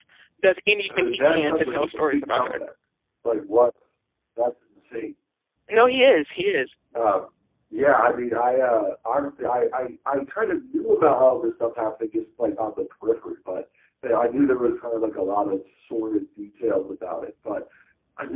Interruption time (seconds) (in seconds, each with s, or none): 0.9 s